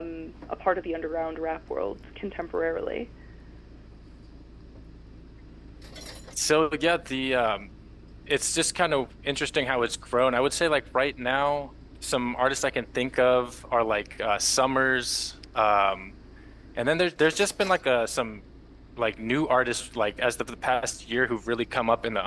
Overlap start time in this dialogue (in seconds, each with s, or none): none